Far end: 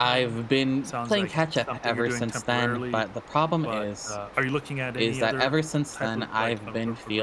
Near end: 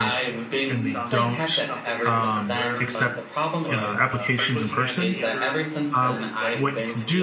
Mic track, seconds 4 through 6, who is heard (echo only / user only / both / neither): both